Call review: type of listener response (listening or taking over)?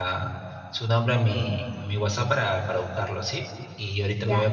listening